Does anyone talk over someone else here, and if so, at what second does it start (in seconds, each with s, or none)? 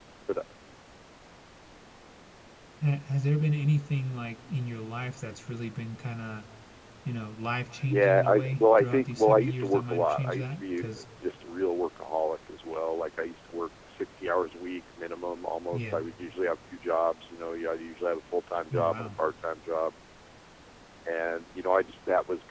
7.9 s